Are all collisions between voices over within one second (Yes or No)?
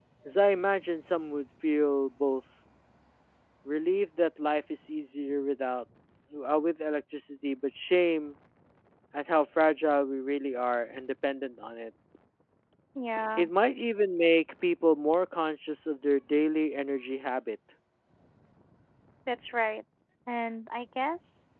Yes